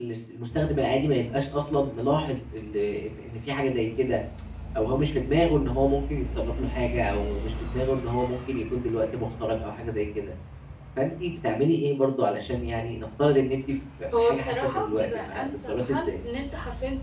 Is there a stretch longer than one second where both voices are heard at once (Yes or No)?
Yes